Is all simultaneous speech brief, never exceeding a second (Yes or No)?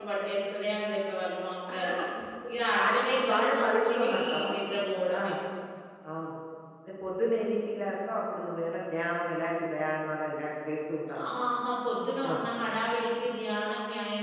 No